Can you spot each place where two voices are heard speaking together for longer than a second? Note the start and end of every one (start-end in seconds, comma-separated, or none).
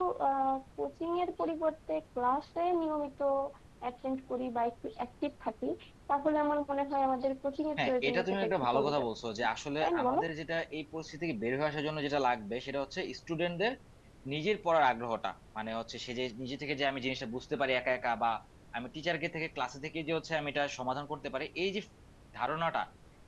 7.8-9.1